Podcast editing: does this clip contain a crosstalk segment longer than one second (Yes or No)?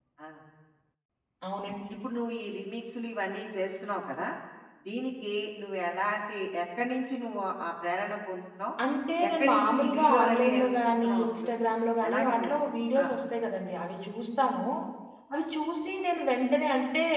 Yes